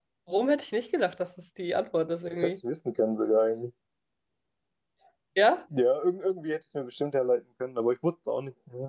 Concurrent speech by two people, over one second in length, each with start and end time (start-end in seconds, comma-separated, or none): none